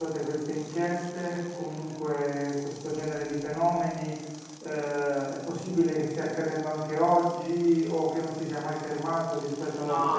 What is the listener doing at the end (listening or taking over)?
taking over